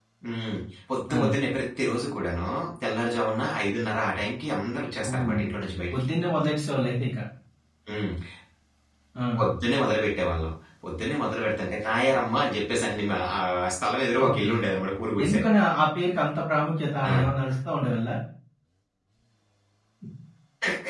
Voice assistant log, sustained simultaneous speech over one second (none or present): none